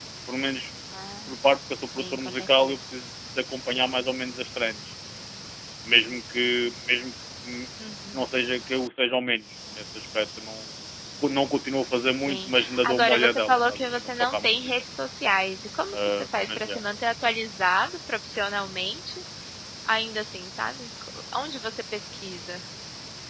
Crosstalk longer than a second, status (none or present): present